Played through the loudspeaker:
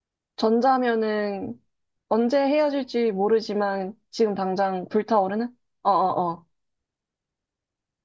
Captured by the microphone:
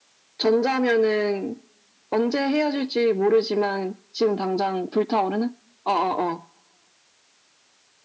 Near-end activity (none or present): none